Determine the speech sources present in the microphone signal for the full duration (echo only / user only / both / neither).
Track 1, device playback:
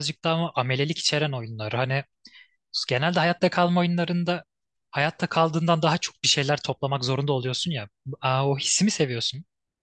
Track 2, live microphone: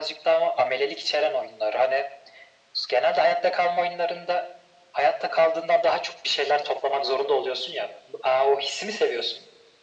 echo only